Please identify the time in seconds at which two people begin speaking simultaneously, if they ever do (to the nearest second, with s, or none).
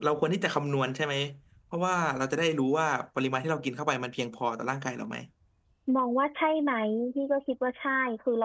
none